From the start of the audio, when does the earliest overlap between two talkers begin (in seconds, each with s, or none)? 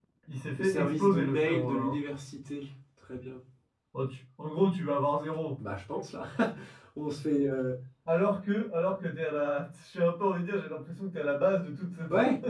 0.6 s